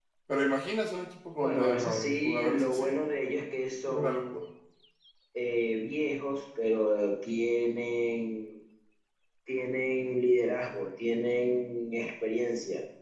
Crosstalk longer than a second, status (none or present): present